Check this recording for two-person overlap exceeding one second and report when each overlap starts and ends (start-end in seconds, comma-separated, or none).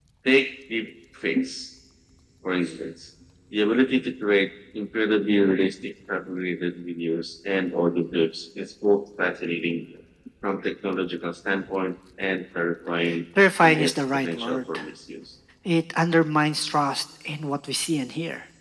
13.6-14.8